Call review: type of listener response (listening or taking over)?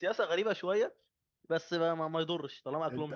taking over